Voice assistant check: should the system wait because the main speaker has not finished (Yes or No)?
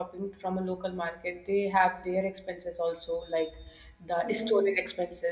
Yes